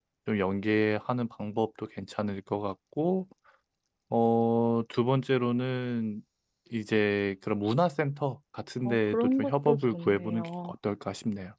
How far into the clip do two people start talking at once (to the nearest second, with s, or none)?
9 s